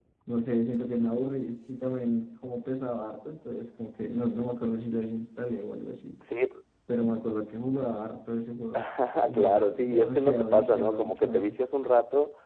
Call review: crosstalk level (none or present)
present